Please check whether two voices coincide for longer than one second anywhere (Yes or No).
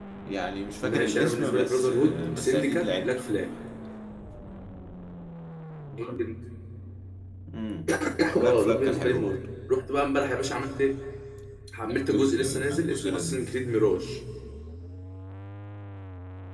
Yes